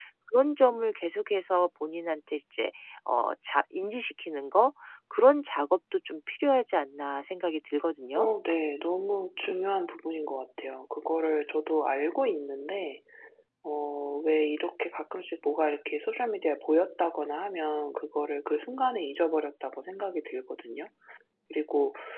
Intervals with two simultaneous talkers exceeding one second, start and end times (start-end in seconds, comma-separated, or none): none